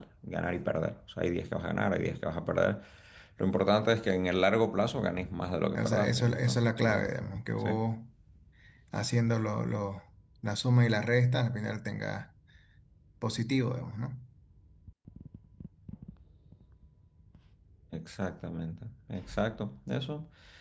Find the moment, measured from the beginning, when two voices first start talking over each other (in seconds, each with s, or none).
5.8 s